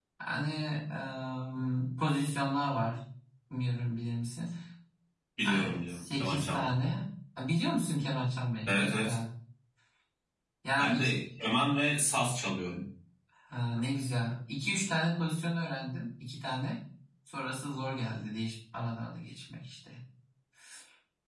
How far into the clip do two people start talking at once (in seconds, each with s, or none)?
5.4 s